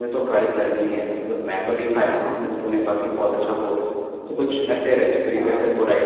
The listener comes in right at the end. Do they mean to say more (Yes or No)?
No